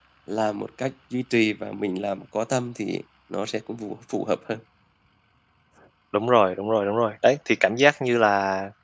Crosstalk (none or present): none